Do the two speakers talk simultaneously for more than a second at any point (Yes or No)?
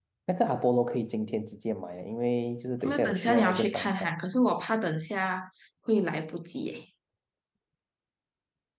Yes